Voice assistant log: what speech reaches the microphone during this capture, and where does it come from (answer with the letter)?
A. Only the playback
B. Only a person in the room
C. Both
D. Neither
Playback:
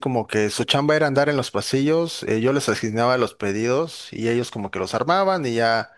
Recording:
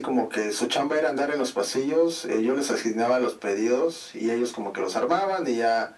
A